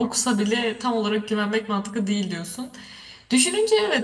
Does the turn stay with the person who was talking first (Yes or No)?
Yes